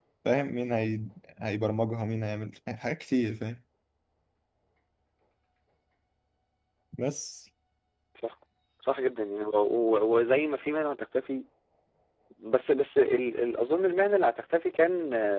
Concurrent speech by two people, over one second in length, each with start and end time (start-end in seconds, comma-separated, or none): none